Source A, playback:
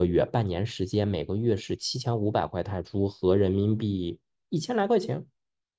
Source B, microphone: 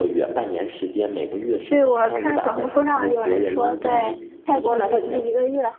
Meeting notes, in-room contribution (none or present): present